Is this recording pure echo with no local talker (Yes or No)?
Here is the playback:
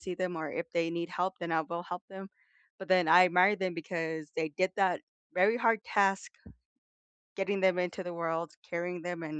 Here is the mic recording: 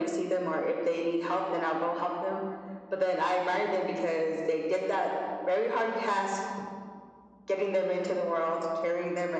Yes